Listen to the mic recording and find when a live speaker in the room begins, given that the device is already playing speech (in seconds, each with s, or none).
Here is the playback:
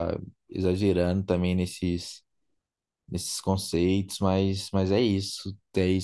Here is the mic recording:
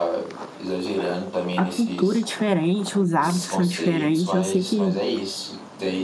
1.6 s